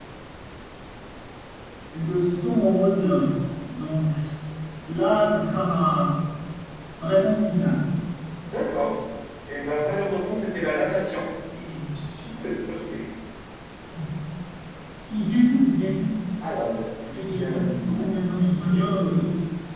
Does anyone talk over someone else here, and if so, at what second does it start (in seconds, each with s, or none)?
17.1 s